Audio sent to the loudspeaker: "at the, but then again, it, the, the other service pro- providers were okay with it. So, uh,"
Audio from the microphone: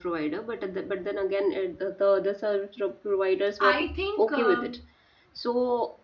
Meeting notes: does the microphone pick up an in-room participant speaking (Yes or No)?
Yes